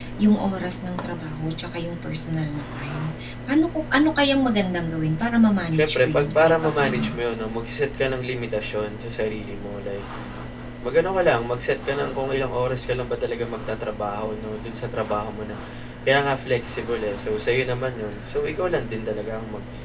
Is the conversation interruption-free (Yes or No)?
No